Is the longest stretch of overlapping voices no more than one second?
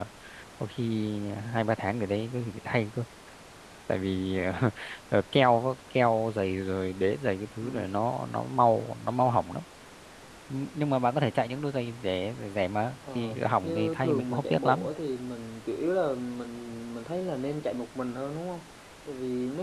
No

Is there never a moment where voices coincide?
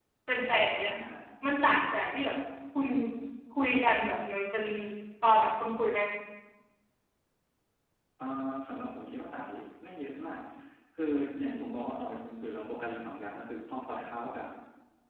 Yes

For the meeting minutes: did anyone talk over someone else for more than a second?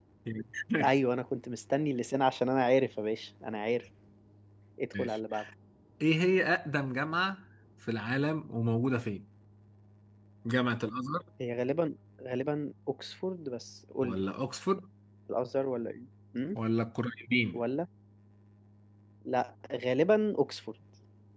No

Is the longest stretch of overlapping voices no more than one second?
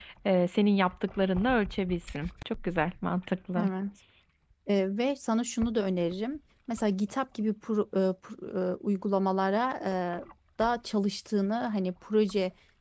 Yes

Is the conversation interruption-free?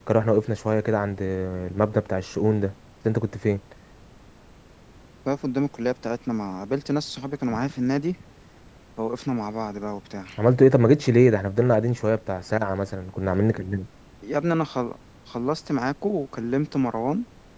Yes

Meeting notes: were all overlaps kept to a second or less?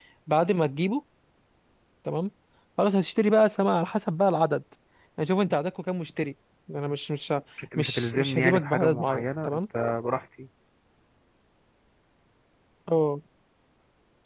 No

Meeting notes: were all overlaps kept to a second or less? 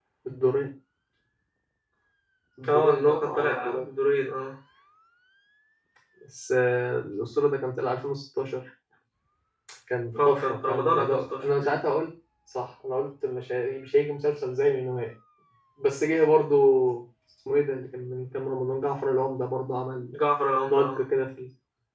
No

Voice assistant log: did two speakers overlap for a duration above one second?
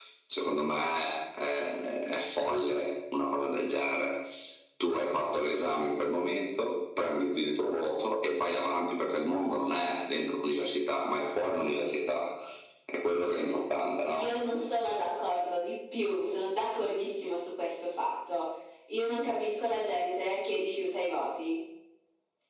No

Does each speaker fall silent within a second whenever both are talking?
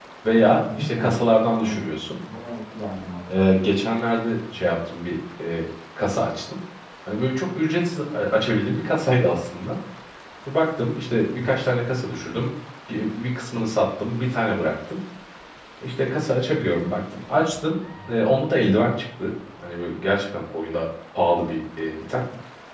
Yes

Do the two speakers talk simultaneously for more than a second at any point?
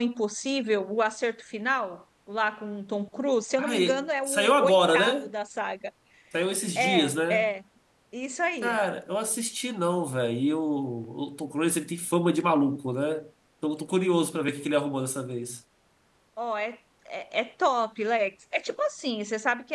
Yes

